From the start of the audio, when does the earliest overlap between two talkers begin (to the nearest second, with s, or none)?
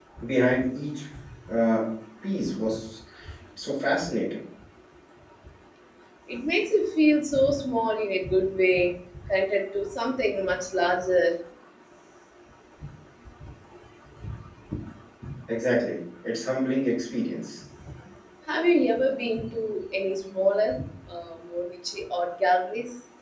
none